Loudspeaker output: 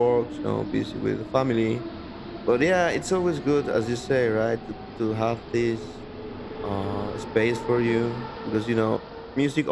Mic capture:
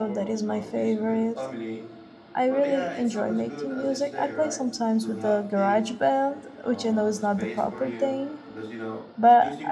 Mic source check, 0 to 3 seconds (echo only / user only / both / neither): both